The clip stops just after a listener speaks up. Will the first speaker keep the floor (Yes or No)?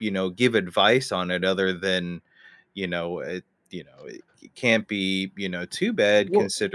Yes